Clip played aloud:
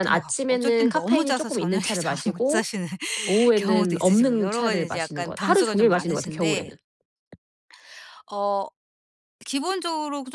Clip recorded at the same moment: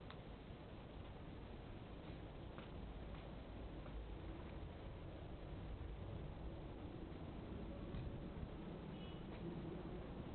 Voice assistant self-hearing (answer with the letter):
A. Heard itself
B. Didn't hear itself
B